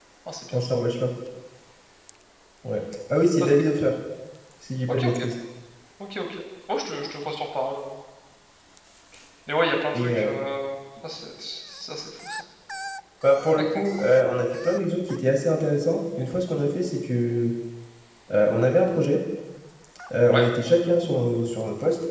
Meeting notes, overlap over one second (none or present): none